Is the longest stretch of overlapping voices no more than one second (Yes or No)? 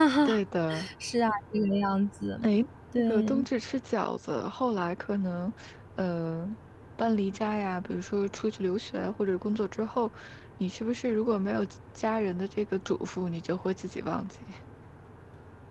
Yes